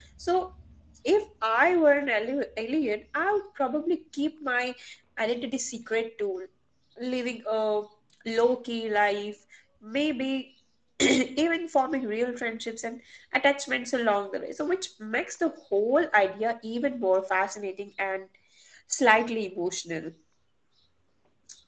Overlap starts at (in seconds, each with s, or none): none